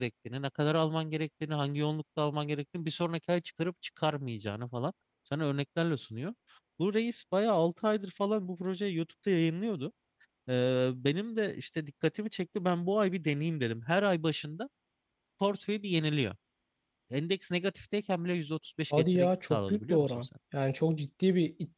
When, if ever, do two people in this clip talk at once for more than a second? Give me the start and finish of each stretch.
19.0-20.3

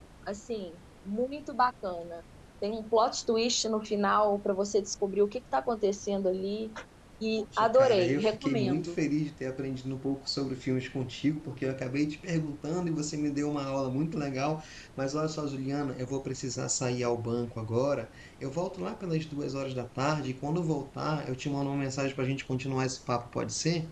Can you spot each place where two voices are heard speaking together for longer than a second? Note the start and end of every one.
7.6-8.9

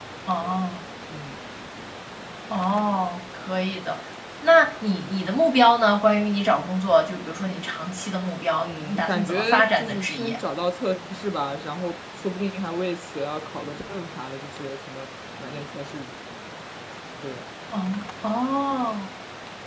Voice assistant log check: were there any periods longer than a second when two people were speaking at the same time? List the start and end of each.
8.6-10.4

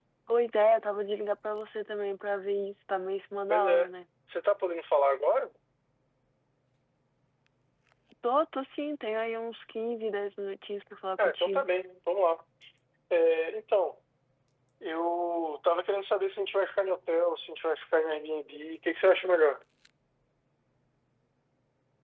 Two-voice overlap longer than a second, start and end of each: none

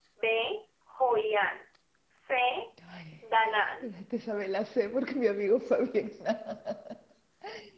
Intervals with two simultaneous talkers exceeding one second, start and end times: none

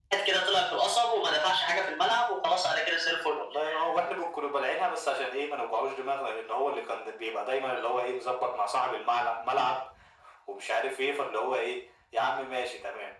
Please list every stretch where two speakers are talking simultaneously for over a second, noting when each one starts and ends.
none

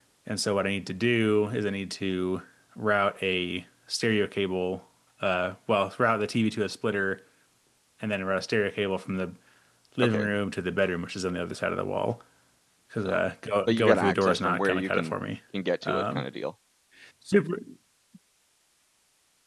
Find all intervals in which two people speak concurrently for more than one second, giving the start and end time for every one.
13.7-15.2

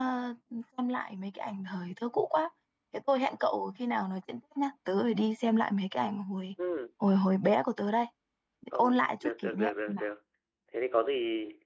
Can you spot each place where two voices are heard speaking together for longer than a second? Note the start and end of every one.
8.7-10.0

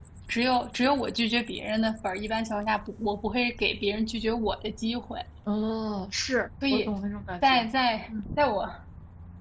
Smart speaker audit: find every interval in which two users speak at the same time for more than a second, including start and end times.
none

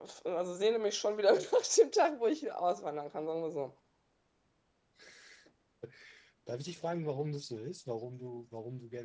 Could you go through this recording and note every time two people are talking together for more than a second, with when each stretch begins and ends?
none

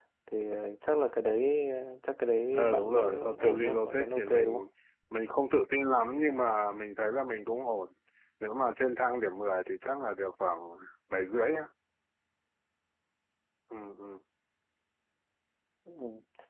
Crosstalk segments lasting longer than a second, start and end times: 2.5-4.6

